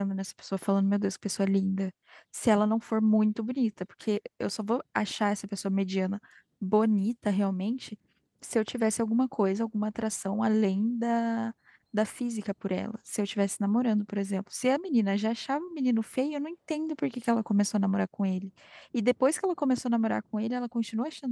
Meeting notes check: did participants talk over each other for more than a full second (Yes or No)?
No